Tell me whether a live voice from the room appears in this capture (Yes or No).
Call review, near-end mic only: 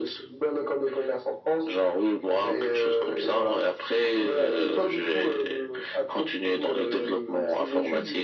No